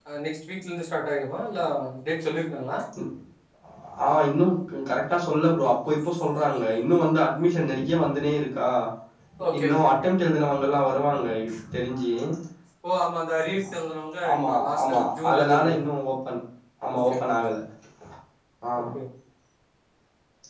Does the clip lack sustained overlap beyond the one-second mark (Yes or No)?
No